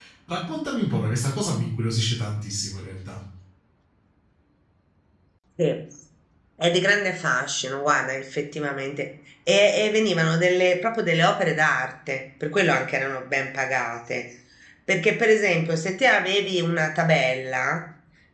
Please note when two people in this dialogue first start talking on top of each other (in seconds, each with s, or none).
none